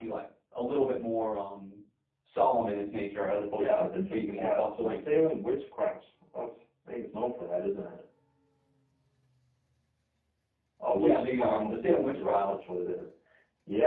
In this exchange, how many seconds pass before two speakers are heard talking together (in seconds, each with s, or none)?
3.5 s